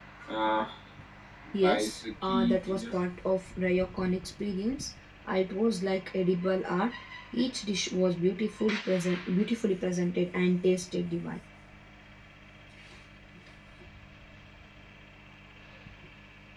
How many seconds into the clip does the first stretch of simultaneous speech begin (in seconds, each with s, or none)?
1.6 s